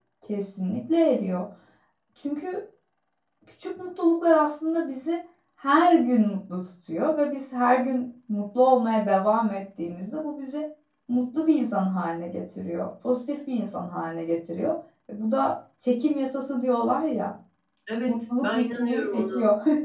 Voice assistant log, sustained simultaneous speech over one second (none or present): present